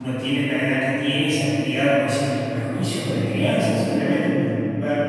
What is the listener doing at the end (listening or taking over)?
listening